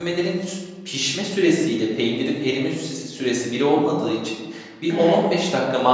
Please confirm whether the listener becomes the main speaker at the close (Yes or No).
No